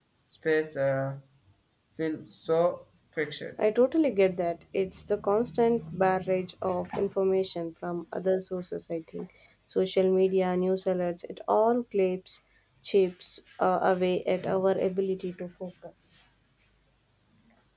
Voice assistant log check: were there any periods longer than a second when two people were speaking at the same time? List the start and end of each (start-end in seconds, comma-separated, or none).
none